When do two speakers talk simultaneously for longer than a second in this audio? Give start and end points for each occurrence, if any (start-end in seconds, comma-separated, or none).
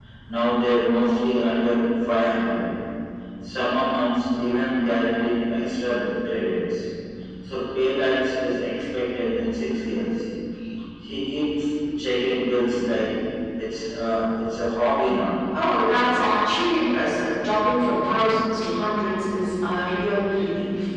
none